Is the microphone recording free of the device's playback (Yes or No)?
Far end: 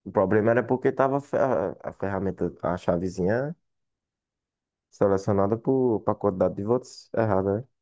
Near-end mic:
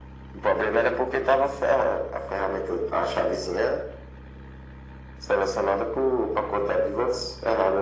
No